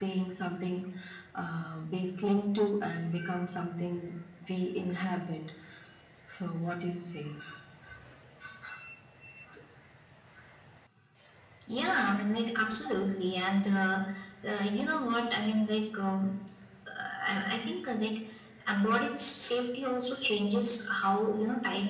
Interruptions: none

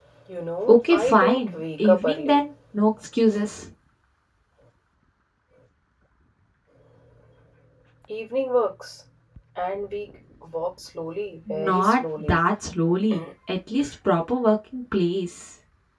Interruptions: present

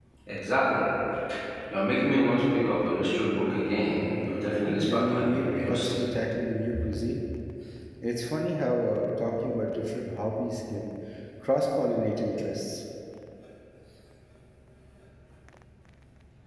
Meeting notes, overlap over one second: present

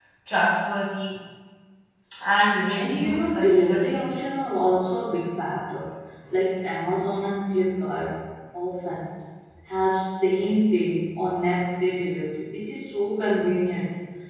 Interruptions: present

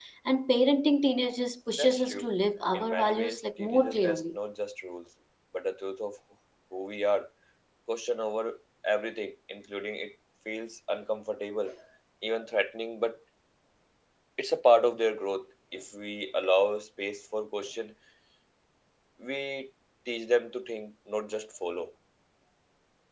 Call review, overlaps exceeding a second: present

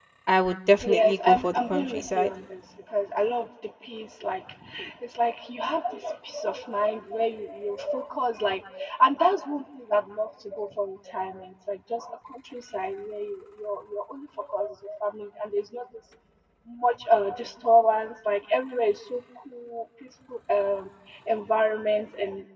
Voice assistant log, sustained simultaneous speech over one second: present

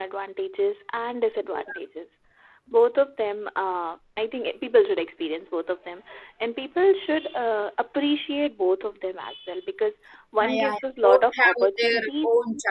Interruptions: present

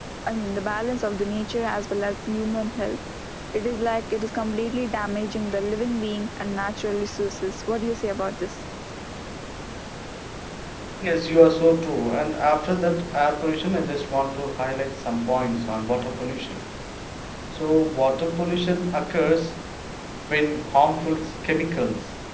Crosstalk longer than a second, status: none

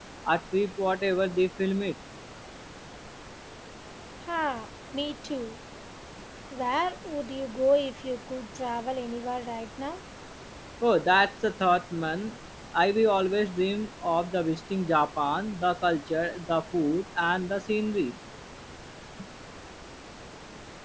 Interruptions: none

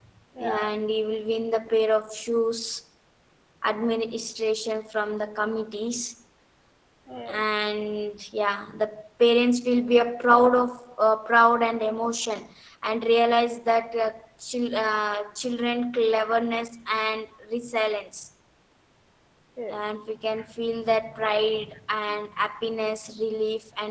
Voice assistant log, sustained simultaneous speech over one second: none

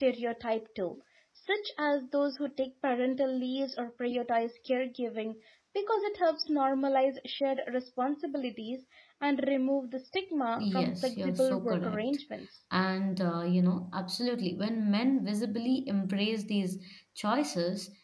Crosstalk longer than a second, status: present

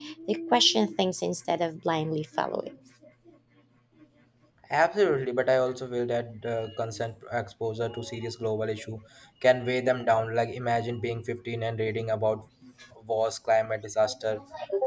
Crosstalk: none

